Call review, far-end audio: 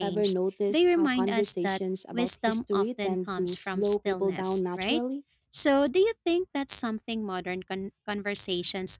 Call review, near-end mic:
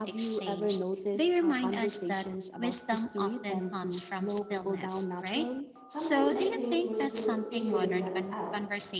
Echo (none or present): present